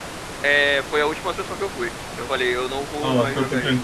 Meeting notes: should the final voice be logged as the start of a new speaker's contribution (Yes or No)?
Yes